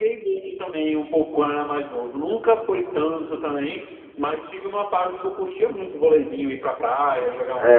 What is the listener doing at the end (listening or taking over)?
taking over